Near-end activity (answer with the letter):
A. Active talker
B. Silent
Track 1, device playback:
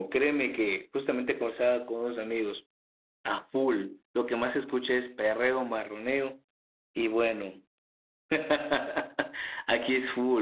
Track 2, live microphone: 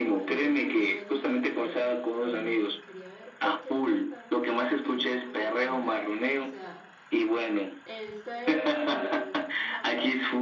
A